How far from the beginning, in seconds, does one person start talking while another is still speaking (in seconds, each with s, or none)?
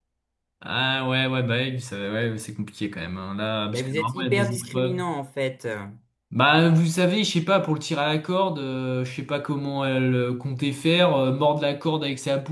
3.7 s